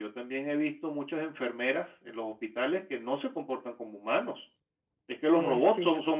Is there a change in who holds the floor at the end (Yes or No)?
No